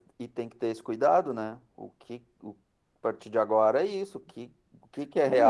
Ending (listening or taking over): taking over